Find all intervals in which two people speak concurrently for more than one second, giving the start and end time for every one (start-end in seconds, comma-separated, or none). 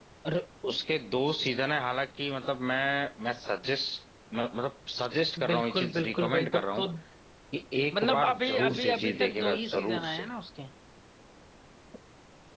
5.5-6.8, 7.9-10.3